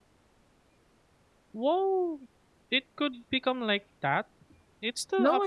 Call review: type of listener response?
taking over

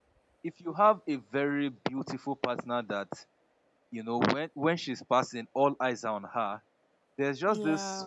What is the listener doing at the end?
listening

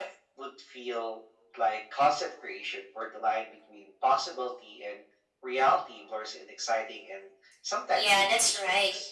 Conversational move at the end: taking over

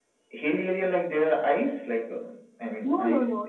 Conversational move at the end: taking over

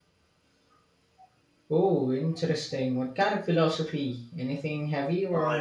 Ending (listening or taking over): taking over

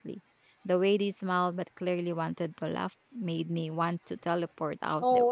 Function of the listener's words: taking over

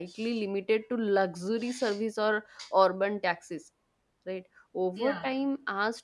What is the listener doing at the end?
listening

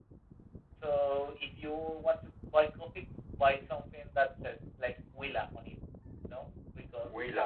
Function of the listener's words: taking over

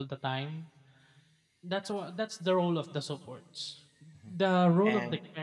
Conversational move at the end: listening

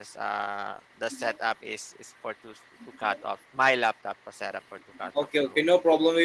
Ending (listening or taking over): taking over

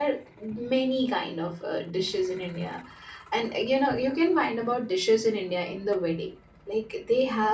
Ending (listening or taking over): listening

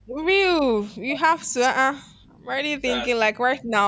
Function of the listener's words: listening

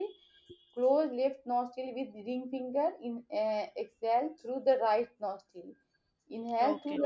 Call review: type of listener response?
listening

